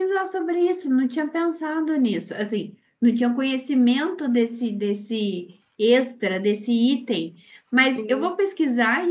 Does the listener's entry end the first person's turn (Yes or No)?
No